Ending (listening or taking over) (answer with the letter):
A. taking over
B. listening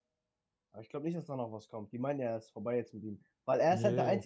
B